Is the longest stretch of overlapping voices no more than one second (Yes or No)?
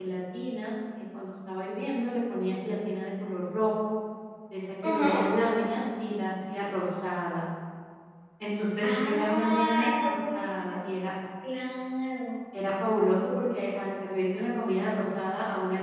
No